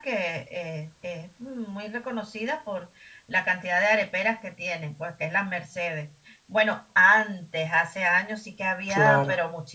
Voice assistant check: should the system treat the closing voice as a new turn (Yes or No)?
No